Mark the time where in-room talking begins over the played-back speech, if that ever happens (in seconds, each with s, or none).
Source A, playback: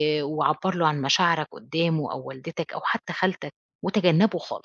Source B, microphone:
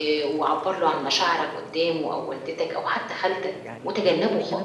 3.5 s